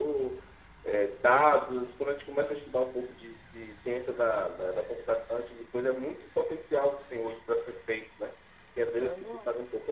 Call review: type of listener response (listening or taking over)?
listening